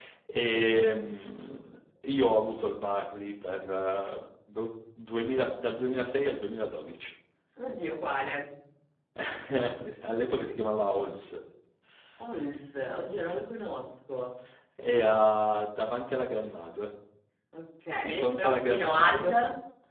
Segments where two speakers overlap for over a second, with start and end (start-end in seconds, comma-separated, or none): 18.0-19.4